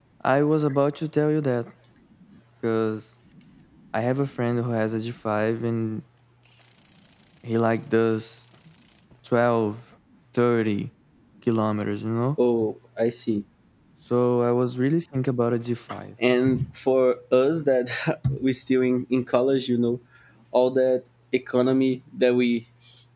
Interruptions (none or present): none